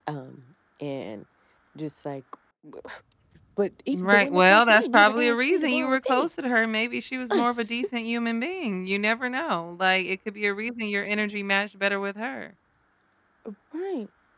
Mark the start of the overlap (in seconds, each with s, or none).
3.9 s